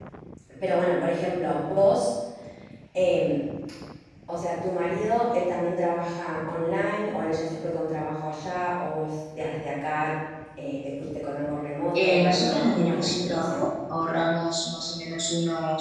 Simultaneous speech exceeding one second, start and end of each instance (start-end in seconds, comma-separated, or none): 11.9-13.7